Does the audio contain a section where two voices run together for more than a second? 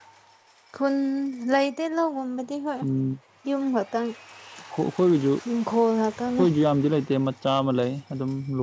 No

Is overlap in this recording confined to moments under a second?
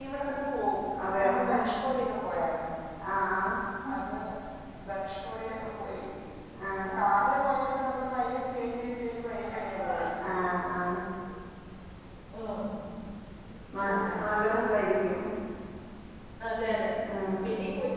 Yes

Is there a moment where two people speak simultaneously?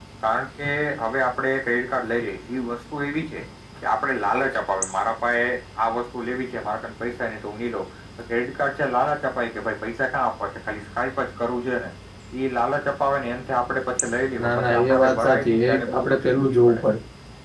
Yes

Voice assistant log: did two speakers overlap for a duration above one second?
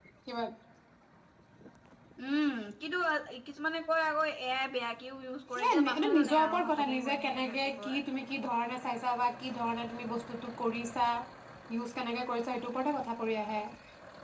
Yes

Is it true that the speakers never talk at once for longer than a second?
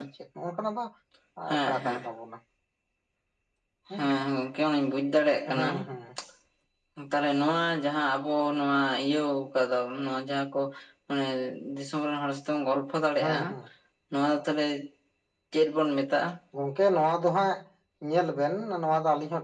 Yes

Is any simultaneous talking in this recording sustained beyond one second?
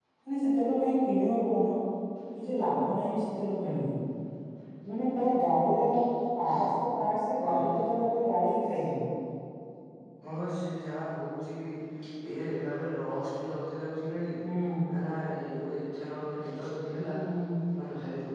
No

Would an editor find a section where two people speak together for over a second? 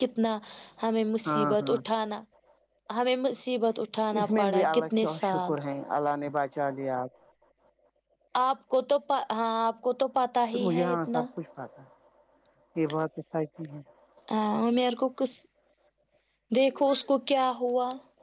Yes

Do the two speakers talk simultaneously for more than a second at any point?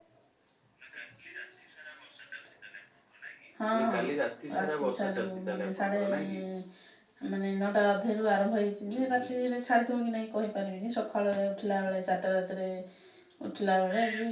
Yes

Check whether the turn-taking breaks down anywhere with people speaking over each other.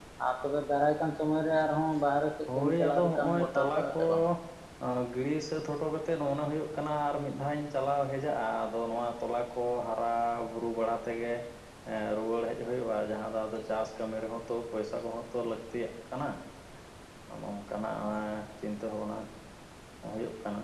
Yes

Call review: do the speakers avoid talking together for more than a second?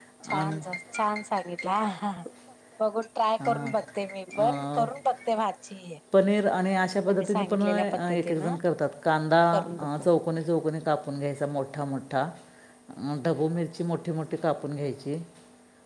No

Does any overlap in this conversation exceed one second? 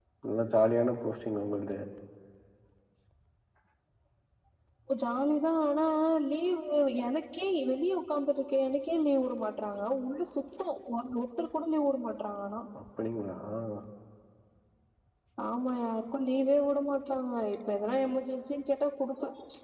No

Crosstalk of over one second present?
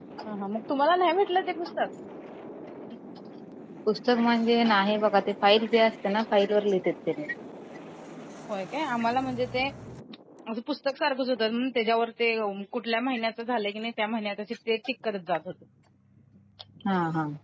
No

